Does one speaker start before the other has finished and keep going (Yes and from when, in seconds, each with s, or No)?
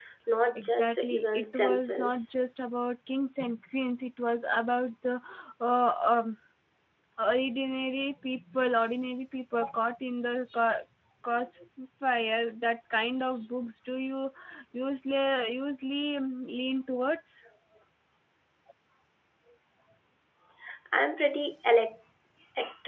Yes, from 0.6 s